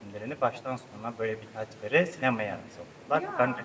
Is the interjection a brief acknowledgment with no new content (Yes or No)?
Yes